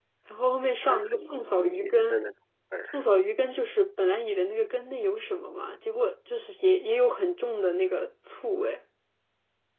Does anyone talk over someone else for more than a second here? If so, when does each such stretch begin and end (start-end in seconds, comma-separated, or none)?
0.9-2.2